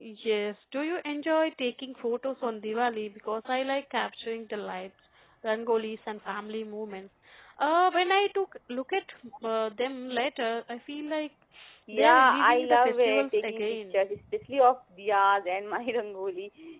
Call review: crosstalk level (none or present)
present